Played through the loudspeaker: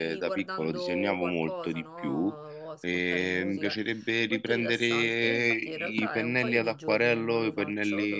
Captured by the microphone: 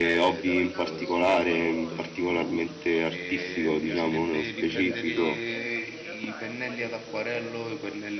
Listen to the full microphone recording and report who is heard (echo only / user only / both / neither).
both